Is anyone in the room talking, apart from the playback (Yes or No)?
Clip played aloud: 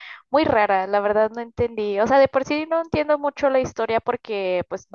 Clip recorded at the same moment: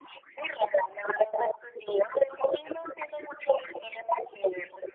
No